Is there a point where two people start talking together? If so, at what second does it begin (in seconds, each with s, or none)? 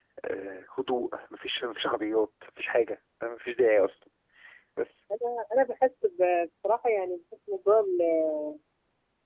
none